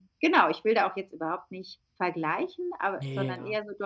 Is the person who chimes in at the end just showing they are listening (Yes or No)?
Yes